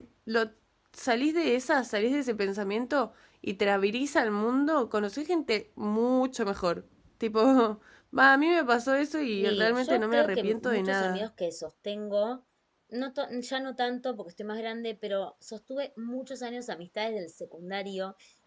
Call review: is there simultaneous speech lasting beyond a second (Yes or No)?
Yes